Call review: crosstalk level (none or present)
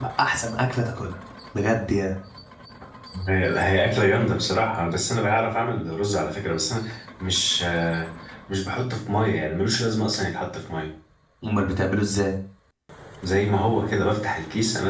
none